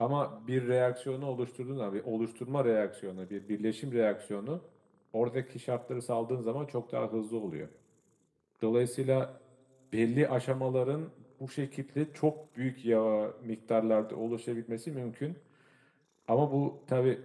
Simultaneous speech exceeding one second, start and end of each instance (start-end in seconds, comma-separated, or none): none